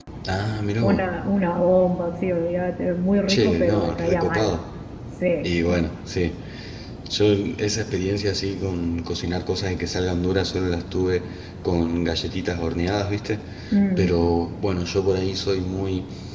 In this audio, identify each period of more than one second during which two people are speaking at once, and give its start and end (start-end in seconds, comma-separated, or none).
3.3-4.6